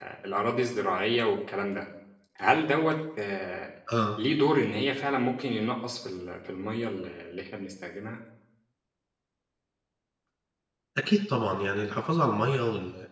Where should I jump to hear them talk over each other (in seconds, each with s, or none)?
none